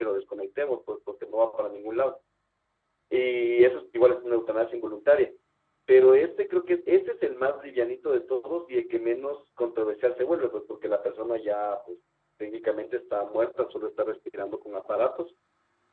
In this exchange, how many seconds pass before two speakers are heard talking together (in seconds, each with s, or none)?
none